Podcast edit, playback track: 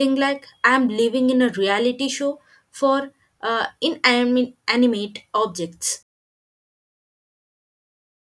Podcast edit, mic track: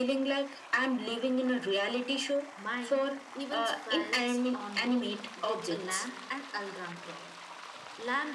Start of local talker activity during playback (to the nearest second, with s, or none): 3 s